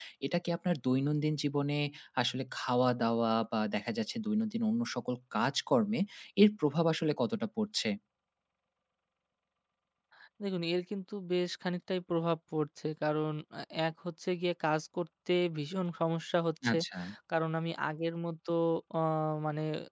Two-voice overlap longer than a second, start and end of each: none

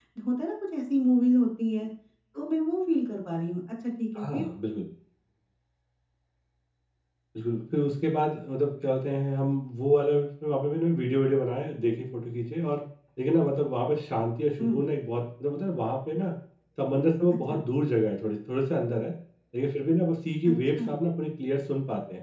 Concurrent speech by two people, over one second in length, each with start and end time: none

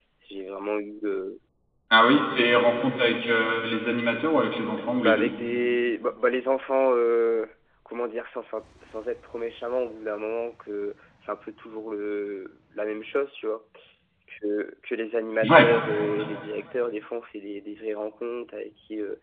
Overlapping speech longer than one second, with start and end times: none

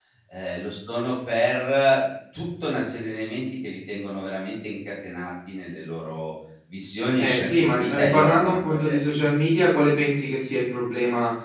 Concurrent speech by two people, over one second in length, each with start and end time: 7.2-9.4

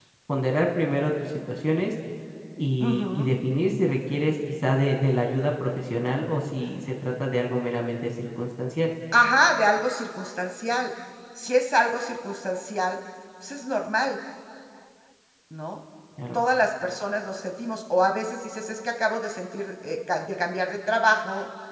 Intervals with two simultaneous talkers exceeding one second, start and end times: none

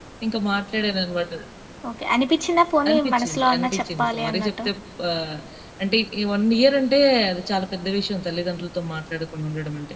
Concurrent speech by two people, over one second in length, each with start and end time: 2.9-4.5

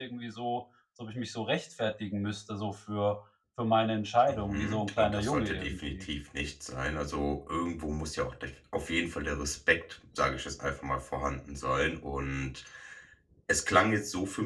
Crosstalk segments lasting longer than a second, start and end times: 4.3-6.0

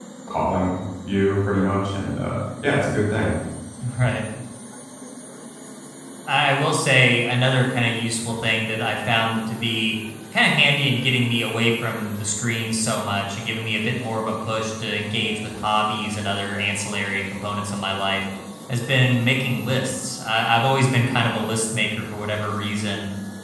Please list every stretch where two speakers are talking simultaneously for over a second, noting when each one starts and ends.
none

